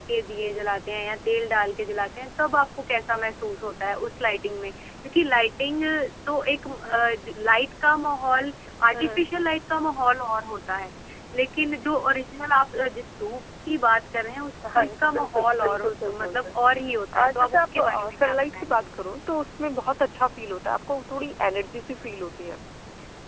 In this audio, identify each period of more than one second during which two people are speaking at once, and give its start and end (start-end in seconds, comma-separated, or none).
14.7-16.5, 17.3-18.9